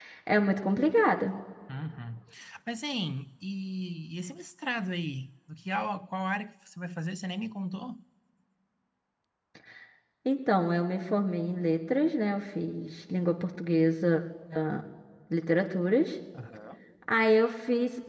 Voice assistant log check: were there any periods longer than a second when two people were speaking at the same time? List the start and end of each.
none

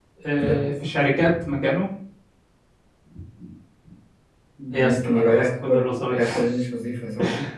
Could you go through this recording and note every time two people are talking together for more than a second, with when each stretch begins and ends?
4.7-6.4

